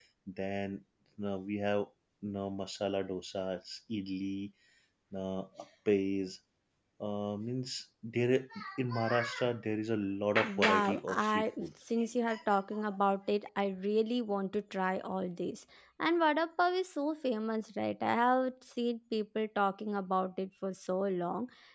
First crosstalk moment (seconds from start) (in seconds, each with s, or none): 10.4 s